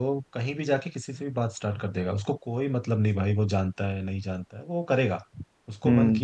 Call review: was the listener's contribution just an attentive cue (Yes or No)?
Yes